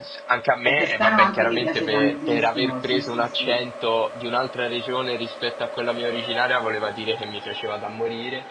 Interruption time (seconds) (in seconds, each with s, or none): 0.7 s